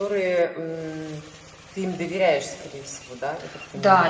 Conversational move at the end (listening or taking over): taking over